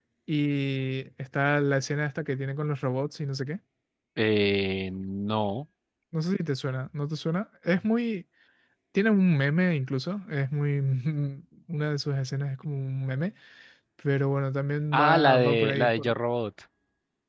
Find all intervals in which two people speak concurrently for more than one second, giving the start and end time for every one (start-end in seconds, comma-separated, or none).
14.9-16.1